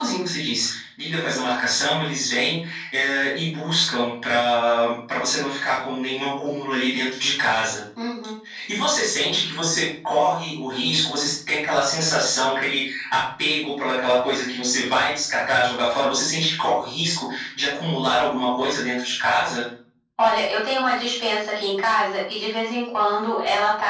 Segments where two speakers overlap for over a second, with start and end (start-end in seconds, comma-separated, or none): none